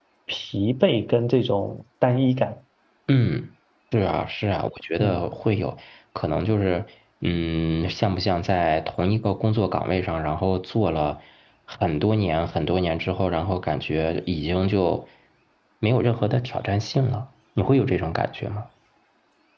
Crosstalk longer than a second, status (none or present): none